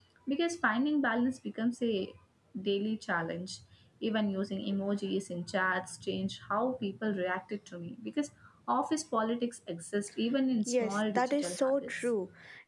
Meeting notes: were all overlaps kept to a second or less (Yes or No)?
No